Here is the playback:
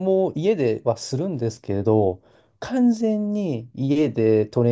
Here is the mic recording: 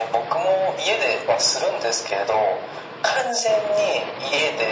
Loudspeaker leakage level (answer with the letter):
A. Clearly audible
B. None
A